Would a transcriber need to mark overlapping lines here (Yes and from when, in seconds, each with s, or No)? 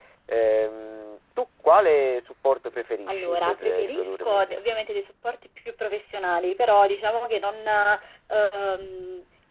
Yes, from 3.1 s